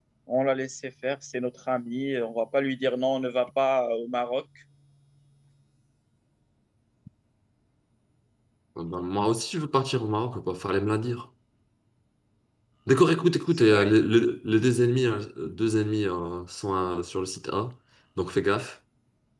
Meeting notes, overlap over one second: none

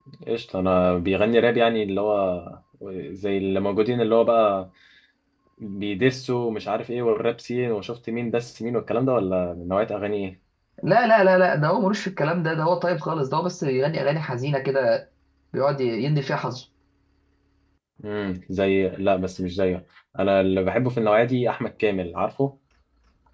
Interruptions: none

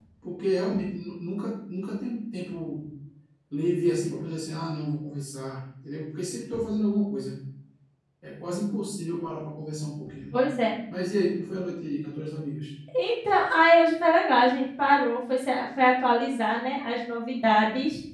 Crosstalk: none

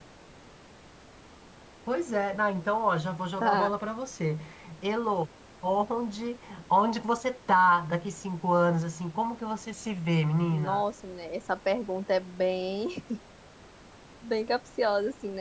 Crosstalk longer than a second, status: none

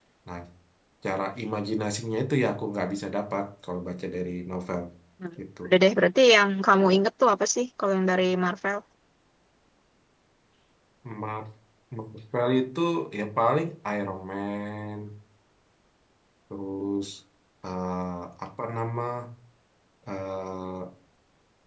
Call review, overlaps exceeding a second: none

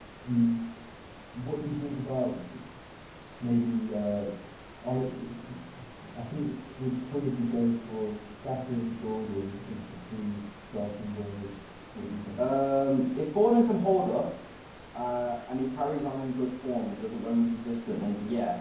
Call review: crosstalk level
none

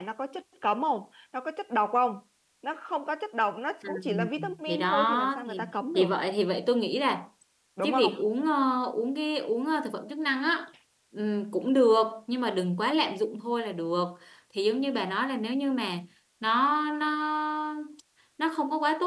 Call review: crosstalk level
present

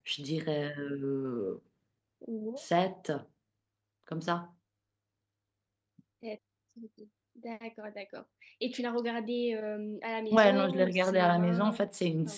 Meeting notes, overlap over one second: present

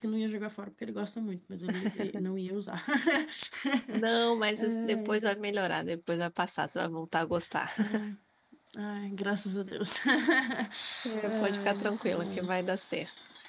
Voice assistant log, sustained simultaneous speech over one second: present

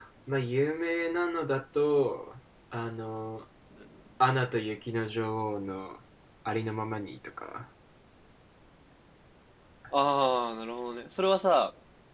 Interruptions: none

